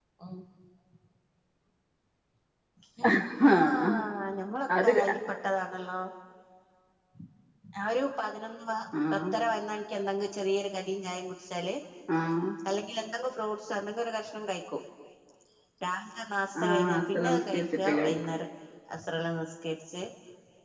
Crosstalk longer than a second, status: present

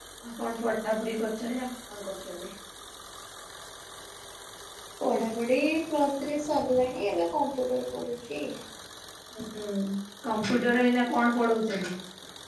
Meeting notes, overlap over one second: none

